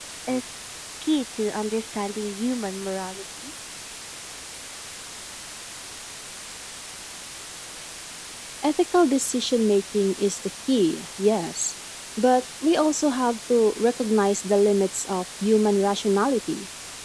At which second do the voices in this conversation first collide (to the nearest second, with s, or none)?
none